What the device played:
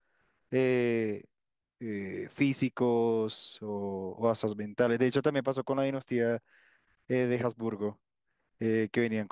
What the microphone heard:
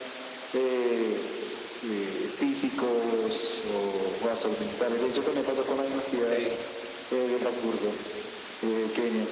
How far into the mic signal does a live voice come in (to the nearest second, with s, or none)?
6 s